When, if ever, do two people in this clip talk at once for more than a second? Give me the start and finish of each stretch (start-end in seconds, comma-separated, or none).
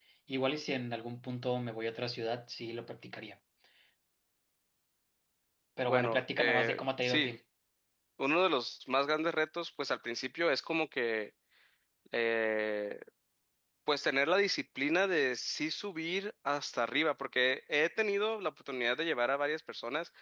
5.9-7.3